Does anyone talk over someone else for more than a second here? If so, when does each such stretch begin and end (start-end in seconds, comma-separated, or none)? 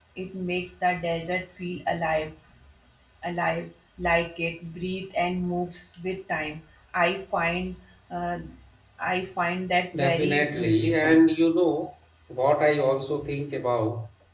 9.9-11.2